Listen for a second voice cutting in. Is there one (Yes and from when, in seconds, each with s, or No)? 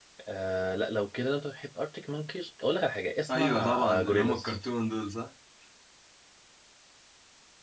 Yes, from 3.3 s